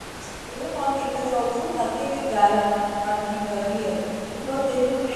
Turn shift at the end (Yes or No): No